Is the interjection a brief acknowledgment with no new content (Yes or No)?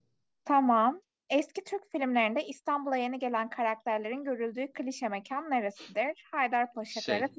Yes